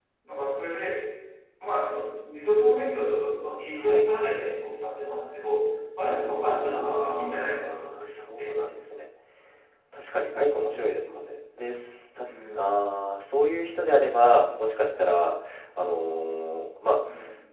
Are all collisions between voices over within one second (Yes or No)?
No